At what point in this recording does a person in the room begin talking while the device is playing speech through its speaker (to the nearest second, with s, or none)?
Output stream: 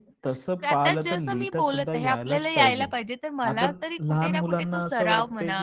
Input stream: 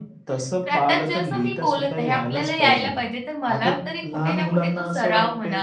none